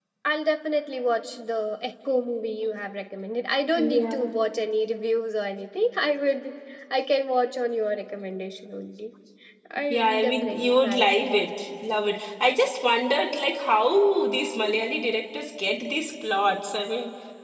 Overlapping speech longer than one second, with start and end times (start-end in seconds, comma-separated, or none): 9.9-11.4